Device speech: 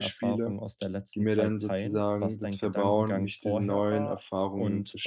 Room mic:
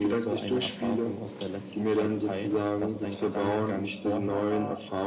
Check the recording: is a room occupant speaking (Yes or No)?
No